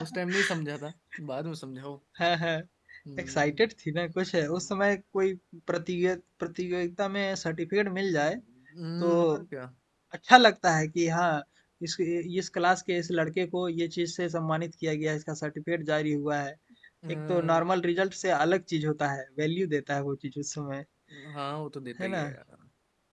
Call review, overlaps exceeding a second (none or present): none